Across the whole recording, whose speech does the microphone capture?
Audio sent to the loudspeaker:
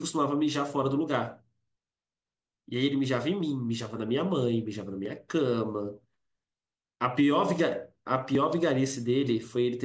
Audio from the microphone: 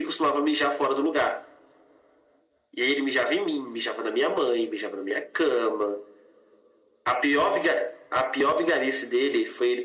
echo only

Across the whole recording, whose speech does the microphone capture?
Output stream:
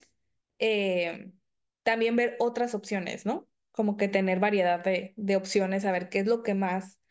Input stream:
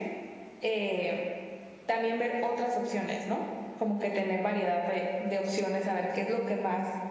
echo only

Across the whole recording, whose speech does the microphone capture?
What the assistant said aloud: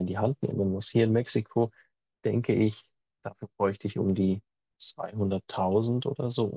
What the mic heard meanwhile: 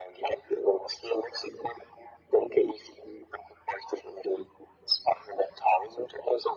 echo only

